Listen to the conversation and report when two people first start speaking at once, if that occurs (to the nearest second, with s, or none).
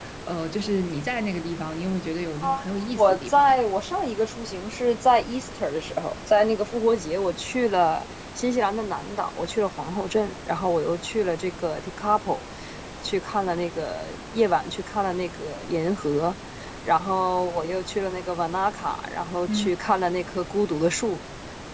2 s